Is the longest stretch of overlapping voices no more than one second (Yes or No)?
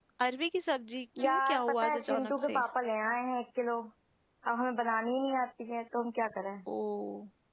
No